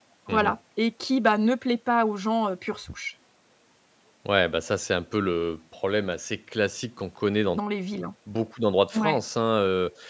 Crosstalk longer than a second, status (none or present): none